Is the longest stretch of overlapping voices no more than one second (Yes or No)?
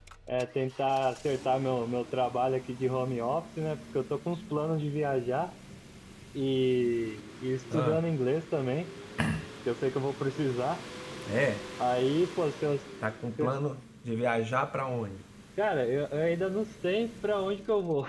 Yes